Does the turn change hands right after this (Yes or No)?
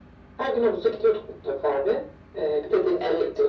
No